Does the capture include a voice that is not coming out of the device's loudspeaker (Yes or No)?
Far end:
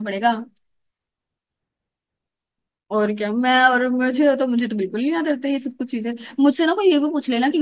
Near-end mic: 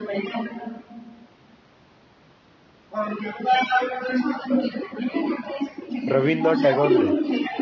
Yes